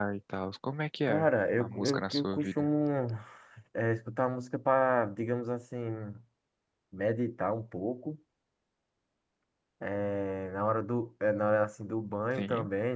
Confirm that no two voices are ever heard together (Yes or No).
No